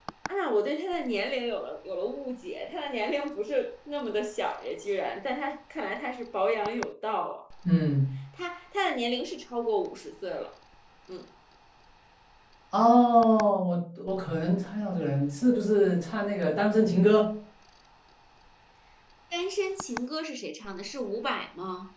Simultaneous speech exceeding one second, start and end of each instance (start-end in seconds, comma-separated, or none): none